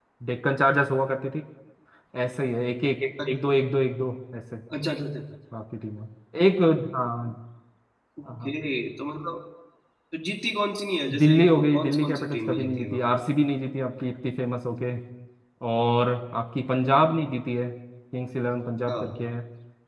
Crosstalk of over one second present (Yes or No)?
Yes